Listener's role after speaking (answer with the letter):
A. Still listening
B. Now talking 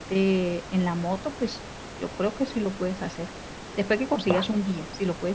A